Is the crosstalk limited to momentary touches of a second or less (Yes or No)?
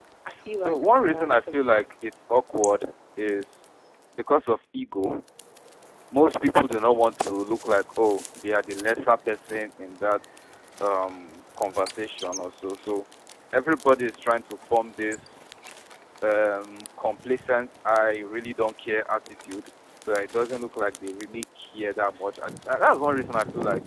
No